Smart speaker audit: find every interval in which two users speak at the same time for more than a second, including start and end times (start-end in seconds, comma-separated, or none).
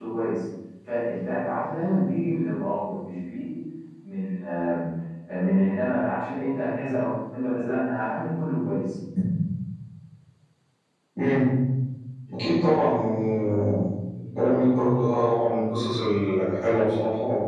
none